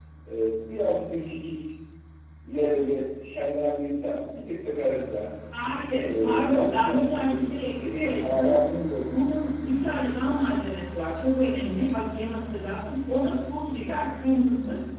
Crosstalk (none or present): present